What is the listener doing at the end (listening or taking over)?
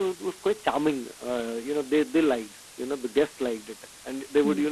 listening